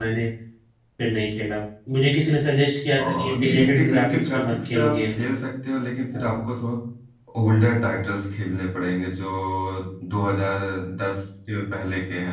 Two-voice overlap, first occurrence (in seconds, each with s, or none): 2.9 s